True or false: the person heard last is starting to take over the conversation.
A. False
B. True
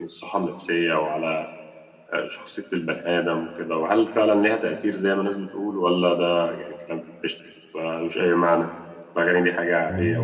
B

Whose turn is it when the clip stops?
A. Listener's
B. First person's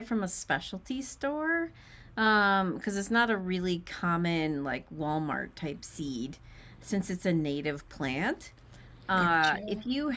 B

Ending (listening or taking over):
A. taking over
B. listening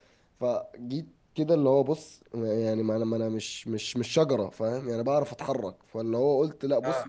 B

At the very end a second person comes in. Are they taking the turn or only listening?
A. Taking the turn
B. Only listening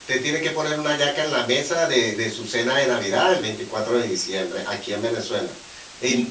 A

